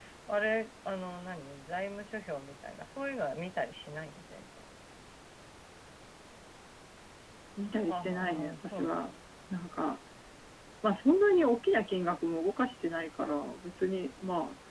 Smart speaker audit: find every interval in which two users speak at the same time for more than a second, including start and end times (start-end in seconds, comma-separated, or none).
7.9-9.1